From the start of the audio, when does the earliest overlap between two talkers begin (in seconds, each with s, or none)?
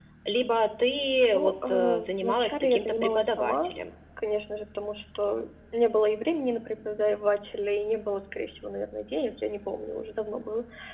1.3 s